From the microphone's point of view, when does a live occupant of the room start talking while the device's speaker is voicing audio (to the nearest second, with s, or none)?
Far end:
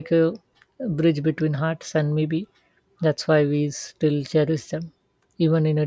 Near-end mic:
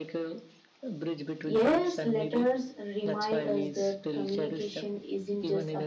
1 s